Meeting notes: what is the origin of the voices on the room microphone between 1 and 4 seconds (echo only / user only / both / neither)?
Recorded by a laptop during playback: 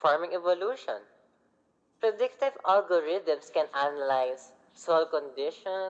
echo only